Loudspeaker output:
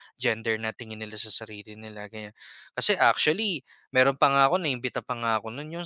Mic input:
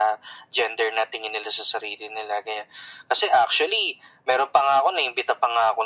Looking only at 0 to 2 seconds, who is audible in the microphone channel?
echo only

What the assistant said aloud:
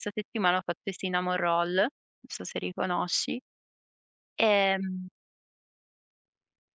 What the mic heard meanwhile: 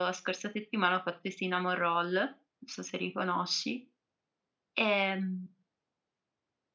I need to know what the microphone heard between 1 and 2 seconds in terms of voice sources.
echo only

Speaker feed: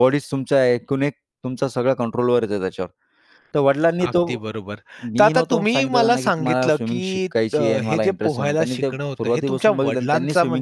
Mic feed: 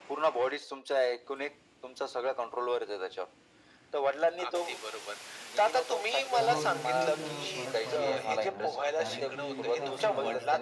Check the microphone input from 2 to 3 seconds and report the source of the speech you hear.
echo only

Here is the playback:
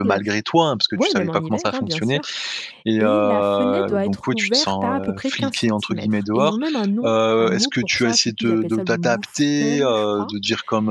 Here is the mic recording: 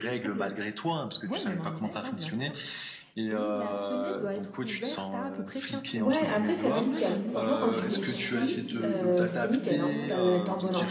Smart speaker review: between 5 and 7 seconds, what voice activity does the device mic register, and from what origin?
both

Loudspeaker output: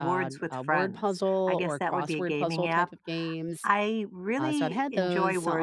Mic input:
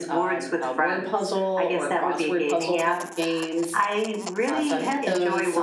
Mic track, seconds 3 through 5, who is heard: echo only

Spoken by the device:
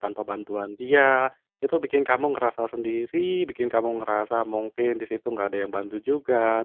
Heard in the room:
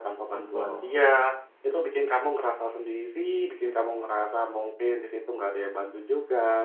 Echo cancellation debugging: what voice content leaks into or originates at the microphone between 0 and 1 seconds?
both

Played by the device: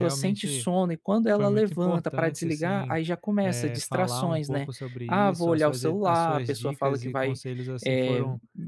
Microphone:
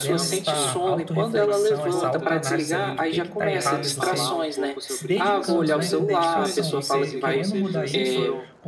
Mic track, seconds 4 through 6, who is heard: both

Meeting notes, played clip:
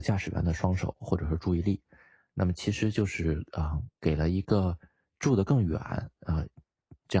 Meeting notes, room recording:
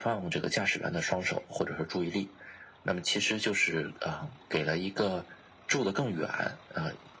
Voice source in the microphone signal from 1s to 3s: echo only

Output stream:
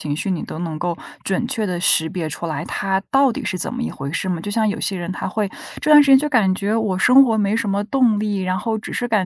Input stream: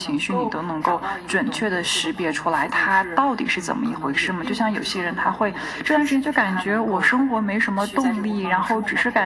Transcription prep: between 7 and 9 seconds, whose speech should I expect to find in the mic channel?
both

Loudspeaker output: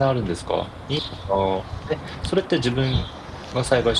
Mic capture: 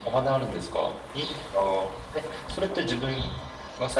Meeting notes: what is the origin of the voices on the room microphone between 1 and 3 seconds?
echo only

